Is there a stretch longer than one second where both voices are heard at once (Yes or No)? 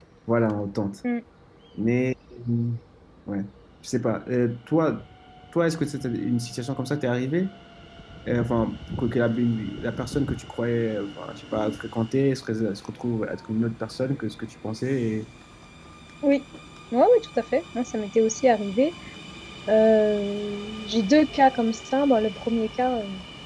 No